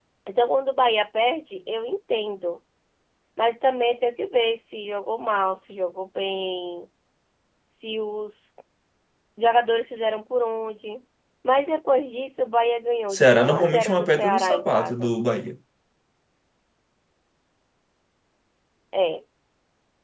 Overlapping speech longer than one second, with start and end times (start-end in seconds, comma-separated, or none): 13.1-15.1